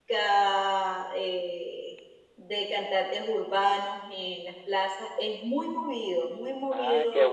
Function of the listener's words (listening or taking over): taking over